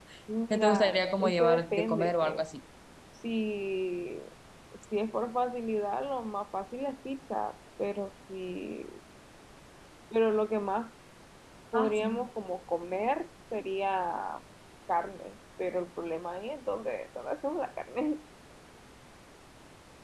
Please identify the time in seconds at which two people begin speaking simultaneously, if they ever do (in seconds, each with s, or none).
0.5 s